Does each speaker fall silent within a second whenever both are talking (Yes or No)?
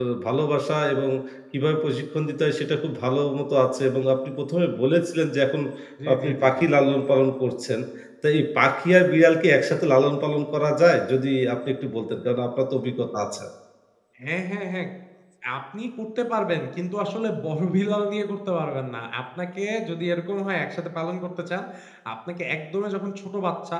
Yes